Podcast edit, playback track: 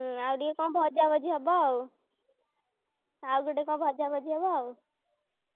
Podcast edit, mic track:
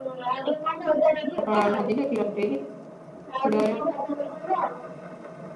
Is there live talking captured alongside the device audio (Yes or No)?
Yes